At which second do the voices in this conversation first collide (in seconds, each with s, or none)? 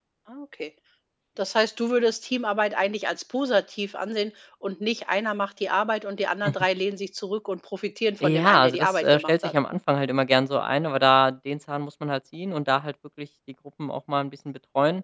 8.2 s